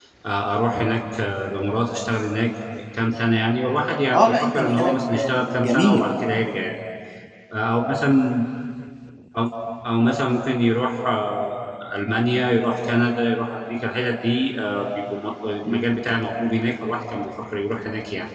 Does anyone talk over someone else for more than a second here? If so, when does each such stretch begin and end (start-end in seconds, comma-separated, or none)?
4.1-6.1